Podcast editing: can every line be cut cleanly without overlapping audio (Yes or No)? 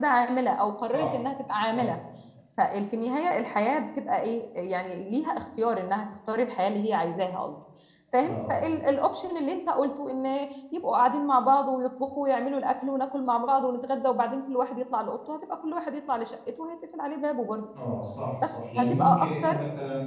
No